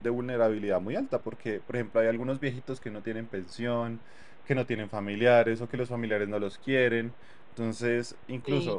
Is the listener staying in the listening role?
No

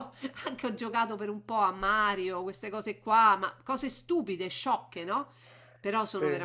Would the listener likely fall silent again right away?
Yes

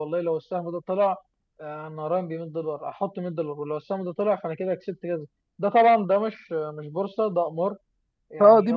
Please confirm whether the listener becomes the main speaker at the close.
No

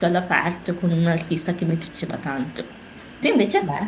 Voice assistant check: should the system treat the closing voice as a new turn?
No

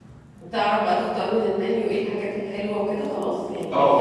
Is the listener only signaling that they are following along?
No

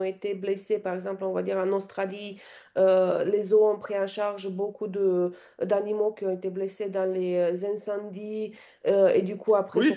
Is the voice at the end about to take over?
No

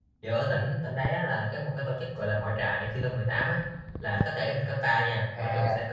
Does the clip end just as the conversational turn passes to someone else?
No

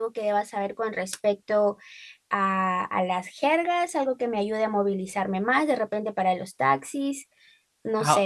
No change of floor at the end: No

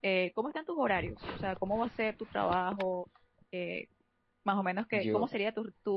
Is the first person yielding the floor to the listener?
No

